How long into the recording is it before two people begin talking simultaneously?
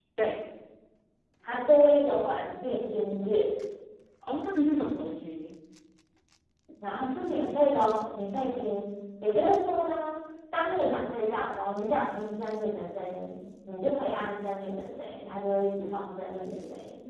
none

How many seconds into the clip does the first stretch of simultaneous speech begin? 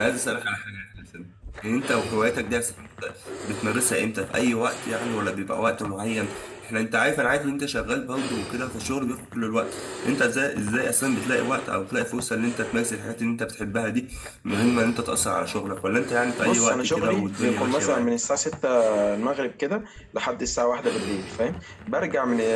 16.4 s

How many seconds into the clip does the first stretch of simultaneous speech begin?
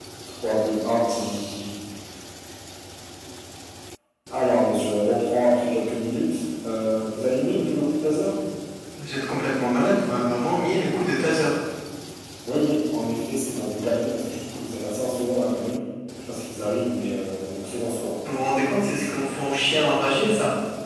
none

